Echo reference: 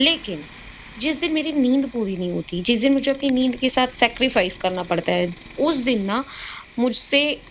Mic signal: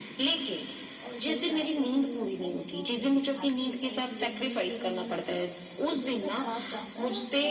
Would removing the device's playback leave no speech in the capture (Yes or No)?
No